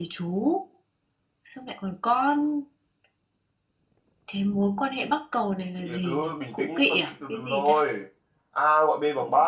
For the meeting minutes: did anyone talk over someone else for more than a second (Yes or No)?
Yes